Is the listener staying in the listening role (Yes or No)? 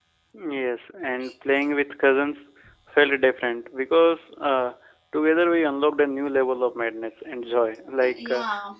Yes